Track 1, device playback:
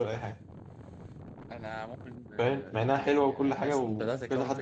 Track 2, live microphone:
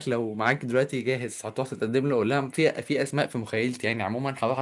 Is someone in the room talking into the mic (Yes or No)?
Yes